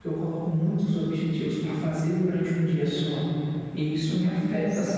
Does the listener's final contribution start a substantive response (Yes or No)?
Yes